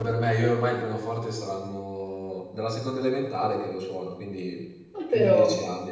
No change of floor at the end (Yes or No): Yes